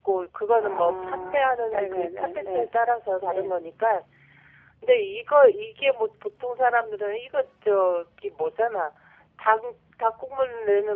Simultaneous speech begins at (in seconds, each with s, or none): 0.6 s